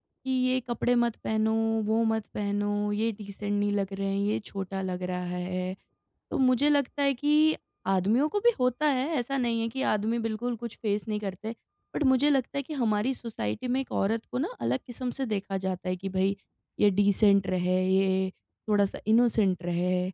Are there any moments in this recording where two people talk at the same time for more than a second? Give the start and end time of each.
none

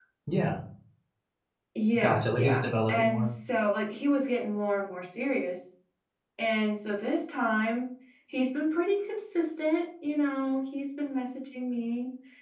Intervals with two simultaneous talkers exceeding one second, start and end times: 1.9-3.3

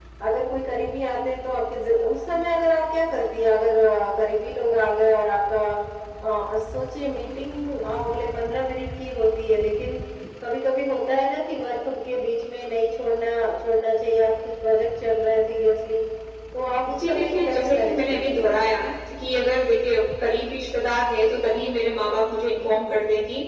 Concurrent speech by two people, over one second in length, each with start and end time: 16.9-18.6

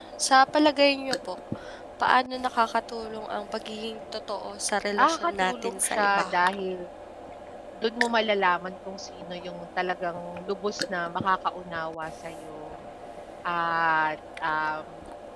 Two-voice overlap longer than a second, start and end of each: 5.0-6.2

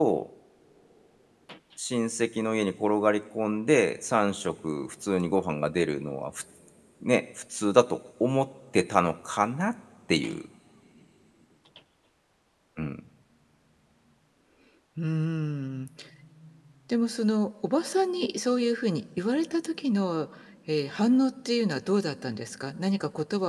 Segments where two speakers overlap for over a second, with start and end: none

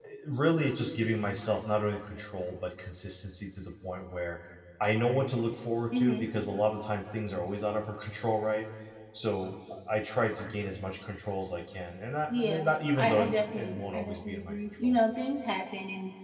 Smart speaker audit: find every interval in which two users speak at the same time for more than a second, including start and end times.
12.3-15.0

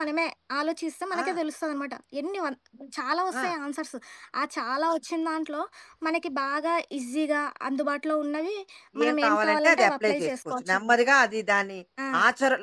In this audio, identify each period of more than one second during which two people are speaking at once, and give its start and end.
9.1-11.0

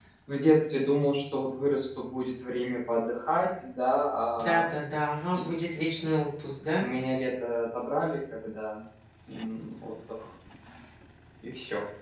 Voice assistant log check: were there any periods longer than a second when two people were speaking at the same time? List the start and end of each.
none

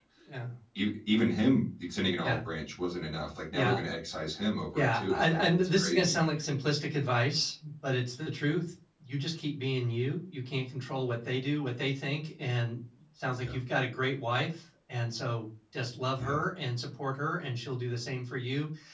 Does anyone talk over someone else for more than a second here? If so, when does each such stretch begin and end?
4.7-6.2

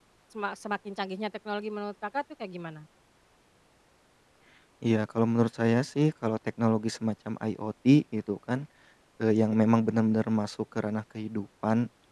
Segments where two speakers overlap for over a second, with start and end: none

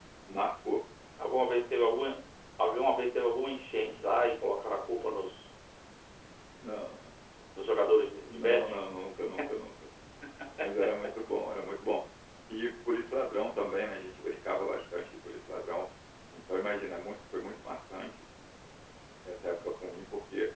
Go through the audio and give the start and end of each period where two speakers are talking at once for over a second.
none

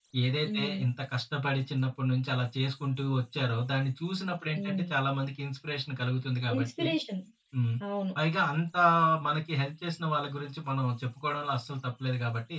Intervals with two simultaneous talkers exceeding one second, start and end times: none

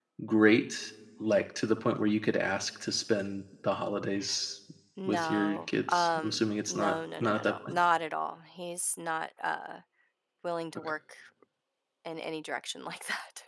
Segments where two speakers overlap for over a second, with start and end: 5.1-7.7

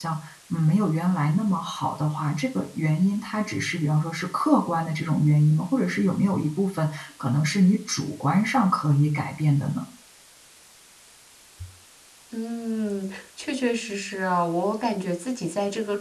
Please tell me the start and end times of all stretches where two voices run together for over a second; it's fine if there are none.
none

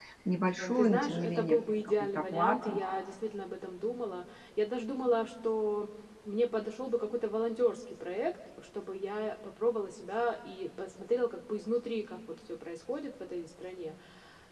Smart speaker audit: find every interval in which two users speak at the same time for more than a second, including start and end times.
0.8-2.8

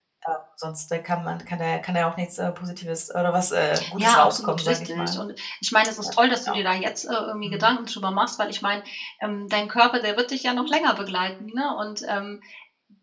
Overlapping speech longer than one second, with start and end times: 4.0-5.2

